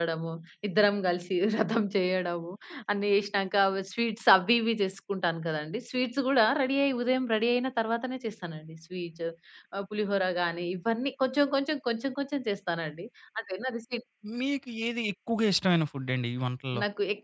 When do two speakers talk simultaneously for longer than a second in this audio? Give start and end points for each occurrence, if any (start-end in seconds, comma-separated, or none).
none